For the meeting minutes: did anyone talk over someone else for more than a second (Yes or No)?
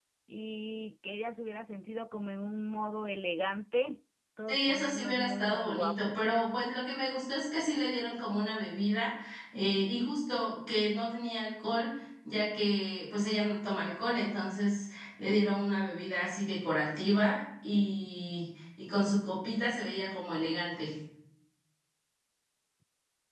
Yes